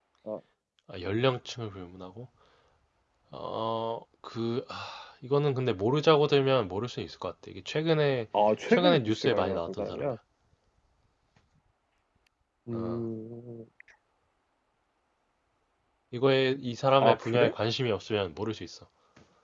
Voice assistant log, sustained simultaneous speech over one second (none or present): present